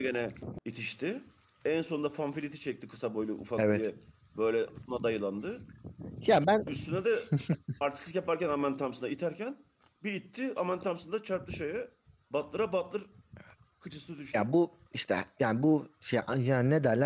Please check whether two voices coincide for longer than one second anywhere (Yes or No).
No